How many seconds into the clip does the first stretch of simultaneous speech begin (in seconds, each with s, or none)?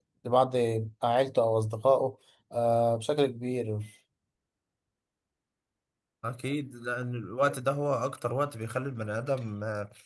none